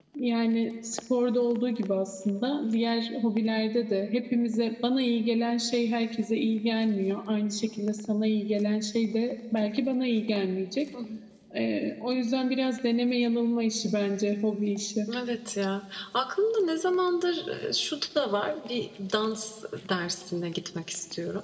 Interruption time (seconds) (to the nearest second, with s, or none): none